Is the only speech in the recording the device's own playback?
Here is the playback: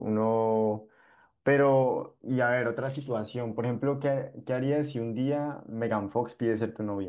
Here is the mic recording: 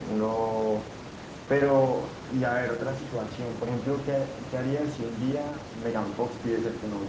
Yes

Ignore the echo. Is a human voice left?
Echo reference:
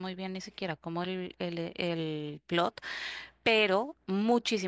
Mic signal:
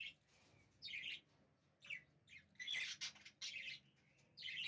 No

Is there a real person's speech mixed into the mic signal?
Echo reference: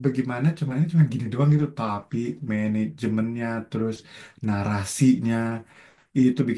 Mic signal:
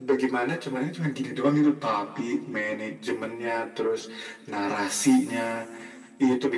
No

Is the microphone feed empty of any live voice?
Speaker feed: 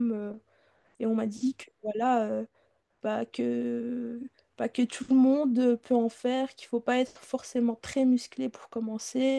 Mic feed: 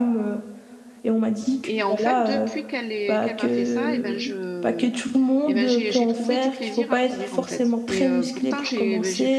No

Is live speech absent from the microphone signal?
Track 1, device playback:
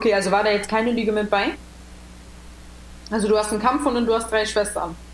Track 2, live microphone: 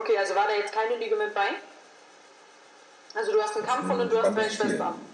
No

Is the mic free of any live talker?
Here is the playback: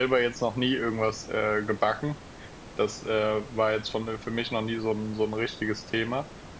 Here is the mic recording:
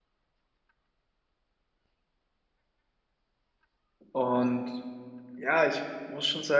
No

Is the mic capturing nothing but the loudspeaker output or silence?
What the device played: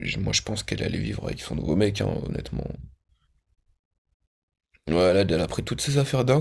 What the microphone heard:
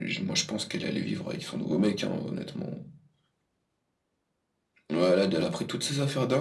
Yes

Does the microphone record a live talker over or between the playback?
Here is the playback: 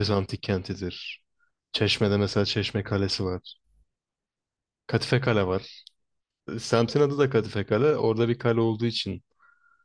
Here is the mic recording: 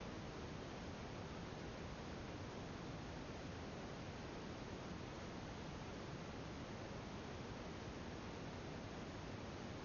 No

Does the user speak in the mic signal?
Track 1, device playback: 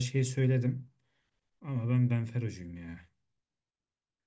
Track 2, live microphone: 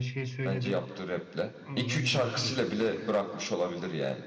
Yes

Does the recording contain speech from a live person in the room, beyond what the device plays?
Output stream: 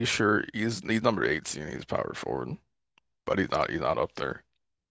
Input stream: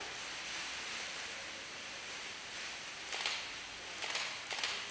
No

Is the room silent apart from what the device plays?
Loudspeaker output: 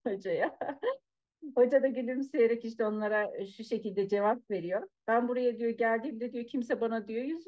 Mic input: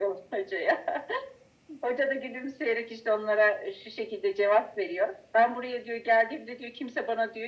Yes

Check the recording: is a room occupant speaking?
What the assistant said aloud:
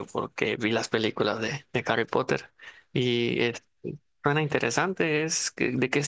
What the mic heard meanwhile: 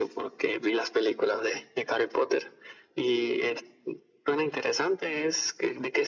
No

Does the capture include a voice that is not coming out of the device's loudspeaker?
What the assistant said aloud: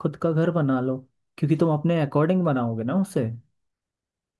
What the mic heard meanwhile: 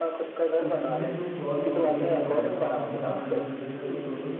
Yes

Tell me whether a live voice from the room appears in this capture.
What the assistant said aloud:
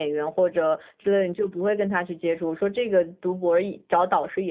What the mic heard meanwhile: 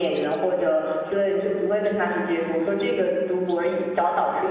No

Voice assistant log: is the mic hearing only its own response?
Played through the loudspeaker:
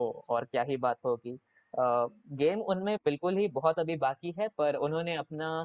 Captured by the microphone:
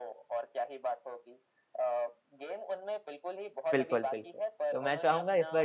No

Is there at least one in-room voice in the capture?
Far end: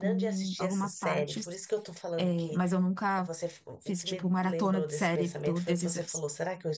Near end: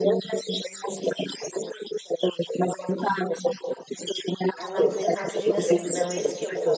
Yes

